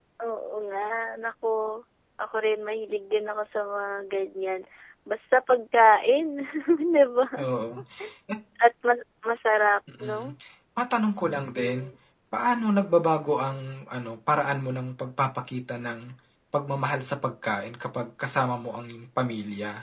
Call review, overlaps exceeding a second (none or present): none